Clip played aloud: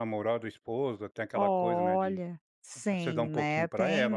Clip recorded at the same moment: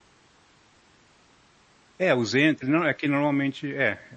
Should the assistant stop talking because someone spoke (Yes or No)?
Yes